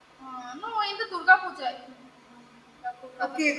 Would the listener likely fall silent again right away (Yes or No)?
No